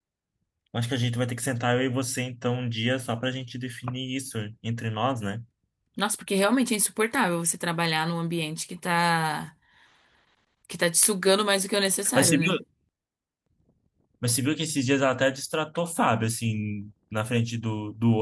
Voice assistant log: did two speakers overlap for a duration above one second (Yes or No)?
No